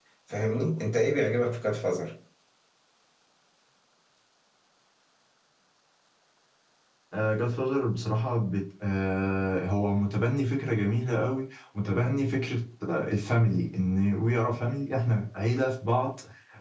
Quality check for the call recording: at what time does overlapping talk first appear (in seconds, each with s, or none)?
none